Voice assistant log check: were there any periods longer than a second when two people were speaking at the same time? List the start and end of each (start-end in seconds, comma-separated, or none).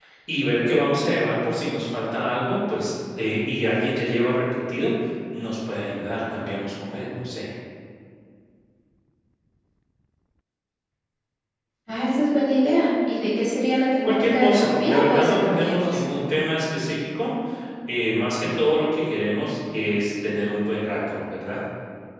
14.0-16.0